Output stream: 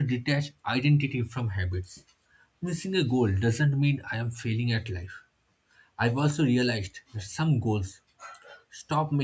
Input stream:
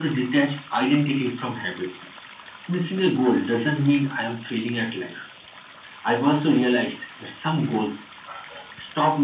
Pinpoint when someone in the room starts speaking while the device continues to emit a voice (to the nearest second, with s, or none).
none